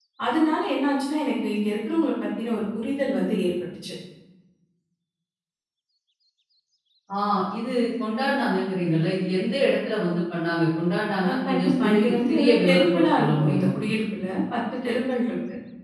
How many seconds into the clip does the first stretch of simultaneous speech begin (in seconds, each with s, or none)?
11.2 s